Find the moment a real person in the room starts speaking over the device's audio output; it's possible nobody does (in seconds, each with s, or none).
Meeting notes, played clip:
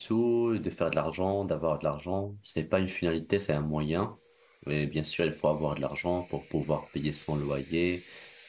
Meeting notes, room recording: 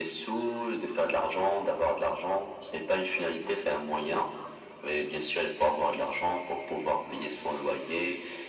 none